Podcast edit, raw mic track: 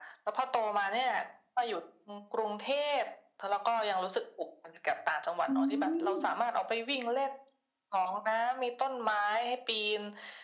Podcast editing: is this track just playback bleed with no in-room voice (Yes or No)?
No